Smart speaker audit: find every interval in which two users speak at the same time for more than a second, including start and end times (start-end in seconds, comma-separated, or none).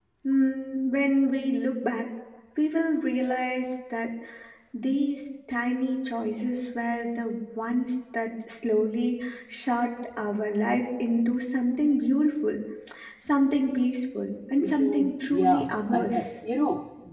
14.6-16.2